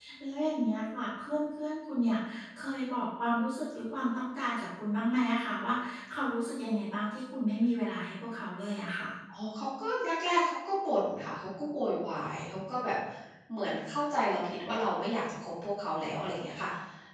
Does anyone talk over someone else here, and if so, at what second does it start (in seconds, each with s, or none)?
none